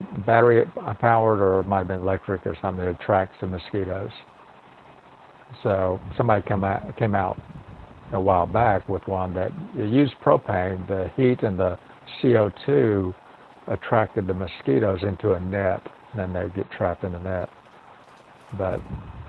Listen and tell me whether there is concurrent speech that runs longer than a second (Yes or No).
No